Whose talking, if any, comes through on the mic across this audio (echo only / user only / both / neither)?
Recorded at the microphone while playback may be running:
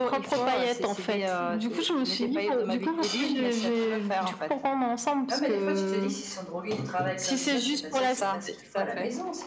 both